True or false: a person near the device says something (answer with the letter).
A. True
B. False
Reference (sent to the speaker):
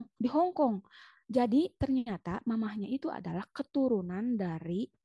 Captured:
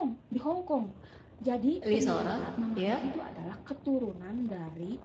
A